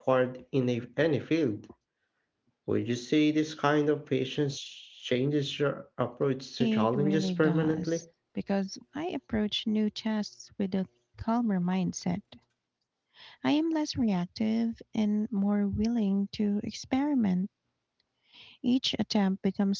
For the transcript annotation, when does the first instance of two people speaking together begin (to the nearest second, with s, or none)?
7 s